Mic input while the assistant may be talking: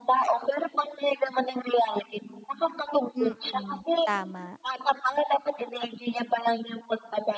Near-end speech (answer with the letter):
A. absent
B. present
B